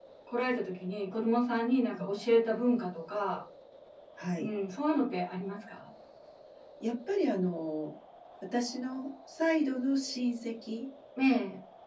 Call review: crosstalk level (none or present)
none